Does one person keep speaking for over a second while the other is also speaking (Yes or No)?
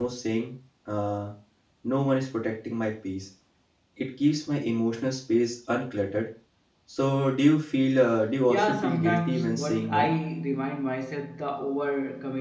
Yes